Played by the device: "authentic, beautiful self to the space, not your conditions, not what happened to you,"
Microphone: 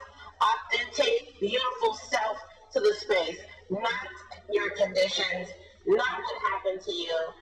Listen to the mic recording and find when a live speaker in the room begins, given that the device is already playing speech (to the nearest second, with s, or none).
none